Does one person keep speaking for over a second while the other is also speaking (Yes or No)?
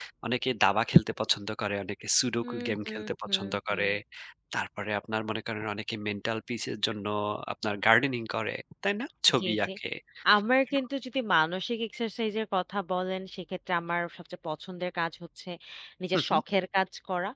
Yes